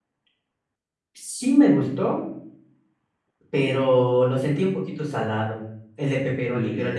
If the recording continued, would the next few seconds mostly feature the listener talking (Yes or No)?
Yes